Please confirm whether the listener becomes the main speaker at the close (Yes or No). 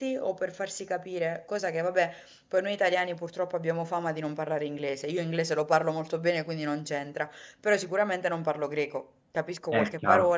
No